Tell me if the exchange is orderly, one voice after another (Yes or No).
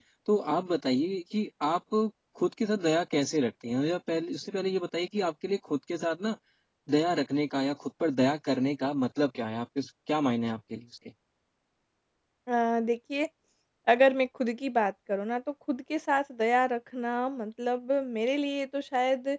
Yes